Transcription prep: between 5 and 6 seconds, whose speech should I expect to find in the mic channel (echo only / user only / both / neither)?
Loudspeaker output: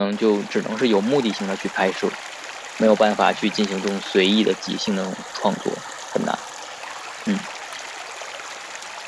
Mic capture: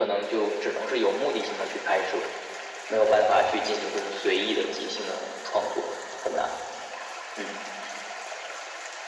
echo only